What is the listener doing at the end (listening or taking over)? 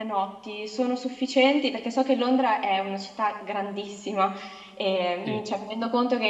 listening